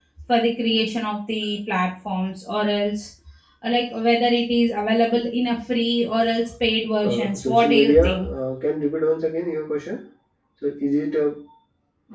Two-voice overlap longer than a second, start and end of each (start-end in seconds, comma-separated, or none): 7.0-8.3